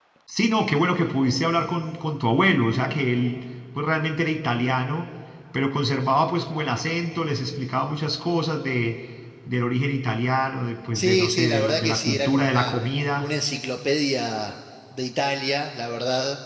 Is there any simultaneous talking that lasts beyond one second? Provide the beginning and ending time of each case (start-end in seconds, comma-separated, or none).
10.9-12.7